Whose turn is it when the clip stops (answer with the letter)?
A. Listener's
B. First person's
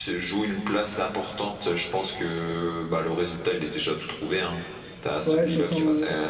A